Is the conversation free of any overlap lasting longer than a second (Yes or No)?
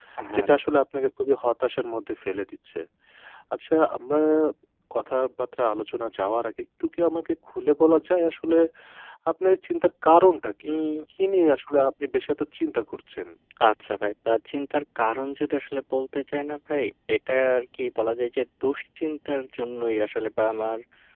Yes